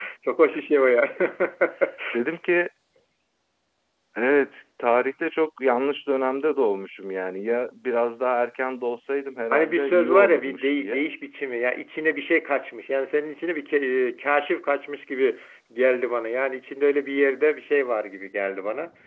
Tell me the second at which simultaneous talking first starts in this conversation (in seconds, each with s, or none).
9.5 s